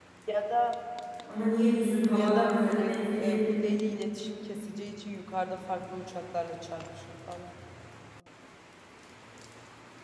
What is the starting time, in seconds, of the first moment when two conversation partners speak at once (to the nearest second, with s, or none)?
2 s